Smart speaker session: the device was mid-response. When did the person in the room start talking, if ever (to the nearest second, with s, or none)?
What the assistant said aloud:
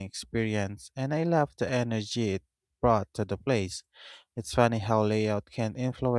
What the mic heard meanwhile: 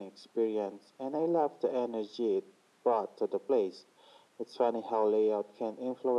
none